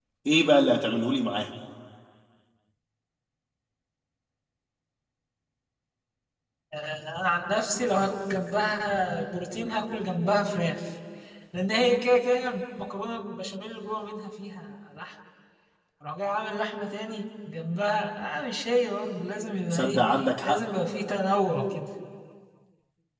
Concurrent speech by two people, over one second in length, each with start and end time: none

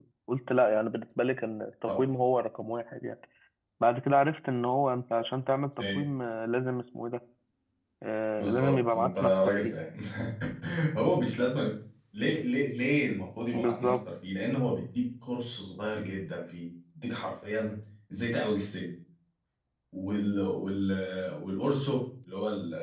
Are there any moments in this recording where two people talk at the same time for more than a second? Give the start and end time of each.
8.4-9.7

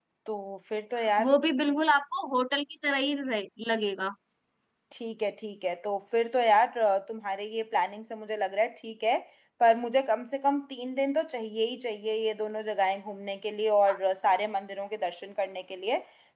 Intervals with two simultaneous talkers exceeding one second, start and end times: none

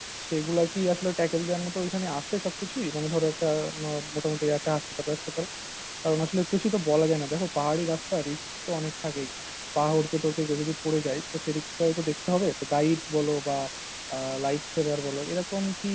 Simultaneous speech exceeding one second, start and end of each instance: none

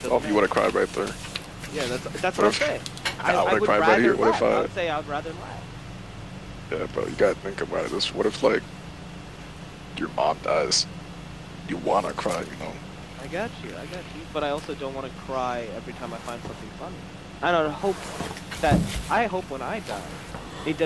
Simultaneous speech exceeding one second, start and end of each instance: 3.3-4.7

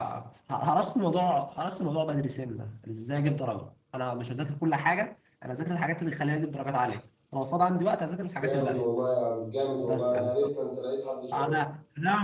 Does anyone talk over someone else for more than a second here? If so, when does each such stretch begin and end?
none

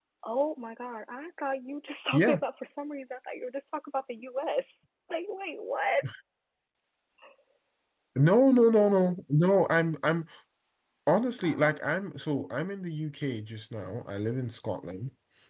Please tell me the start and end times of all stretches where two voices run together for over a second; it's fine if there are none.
none

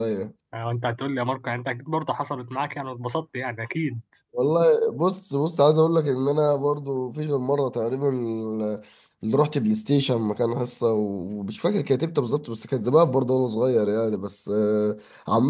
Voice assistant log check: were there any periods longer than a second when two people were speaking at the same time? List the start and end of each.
none

